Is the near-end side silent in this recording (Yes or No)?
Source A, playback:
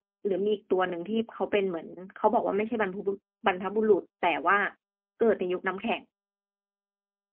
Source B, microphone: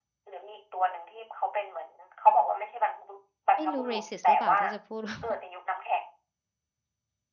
No